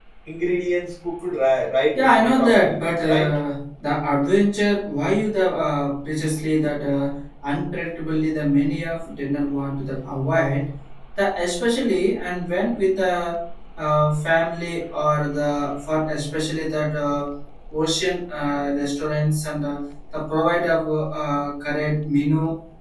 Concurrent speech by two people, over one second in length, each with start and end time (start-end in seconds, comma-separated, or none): 2.0-3.4